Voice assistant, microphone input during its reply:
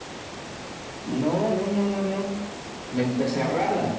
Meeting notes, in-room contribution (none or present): none